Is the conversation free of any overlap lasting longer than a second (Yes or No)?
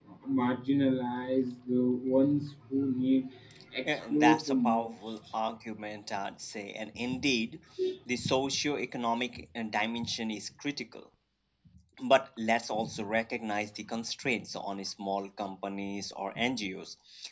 No